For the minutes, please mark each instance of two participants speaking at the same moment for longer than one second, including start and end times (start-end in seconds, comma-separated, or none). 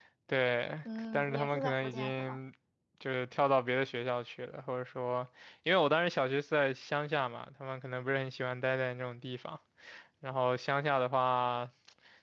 1.1-2.4